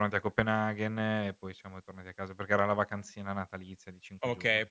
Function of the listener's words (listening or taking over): taking over